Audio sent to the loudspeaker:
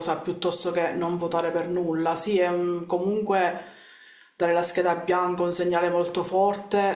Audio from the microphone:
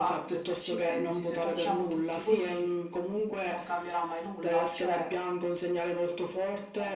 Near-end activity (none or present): present